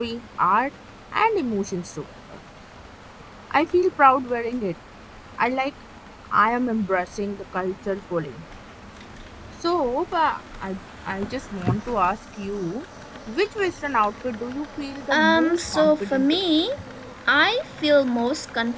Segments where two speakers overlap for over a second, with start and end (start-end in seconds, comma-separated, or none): 15.1-16.4